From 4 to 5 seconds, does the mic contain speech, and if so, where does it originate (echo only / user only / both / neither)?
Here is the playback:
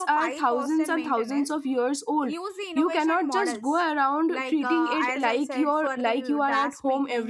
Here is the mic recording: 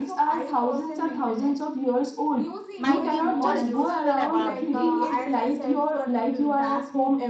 both